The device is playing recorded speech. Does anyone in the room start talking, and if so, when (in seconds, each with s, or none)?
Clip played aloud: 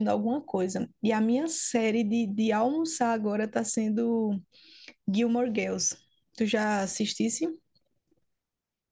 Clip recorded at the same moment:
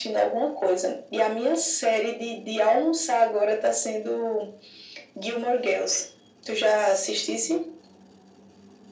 none